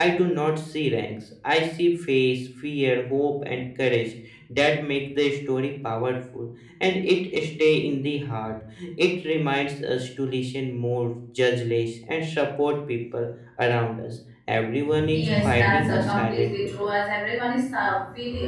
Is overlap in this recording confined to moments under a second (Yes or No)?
No